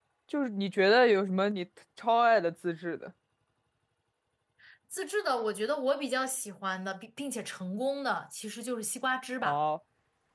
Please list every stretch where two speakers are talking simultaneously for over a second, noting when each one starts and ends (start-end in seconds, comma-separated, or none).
none